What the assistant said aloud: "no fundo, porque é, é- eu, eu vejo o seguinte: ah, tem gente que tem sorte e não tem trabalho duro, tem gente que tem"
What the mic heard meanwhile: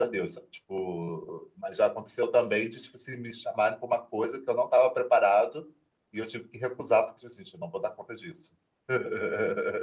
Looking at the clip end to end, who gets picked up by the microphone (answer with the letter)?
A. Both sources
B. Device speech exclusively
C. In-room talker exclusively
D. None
C